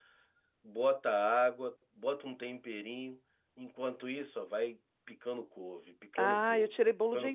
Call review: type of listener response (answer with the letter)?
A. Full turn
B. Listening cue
A